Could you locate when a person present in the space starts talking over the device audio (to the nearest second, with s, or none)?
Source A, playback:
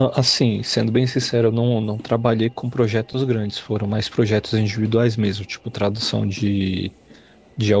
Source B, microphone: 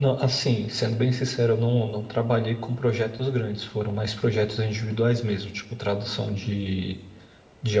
none